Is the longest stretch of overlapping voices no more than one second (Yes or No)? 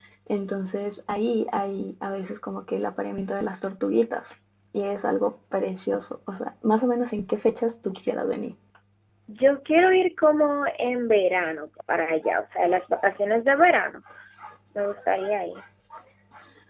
Yes